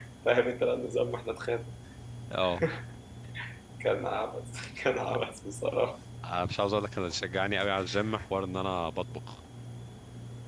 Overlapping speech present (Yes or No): No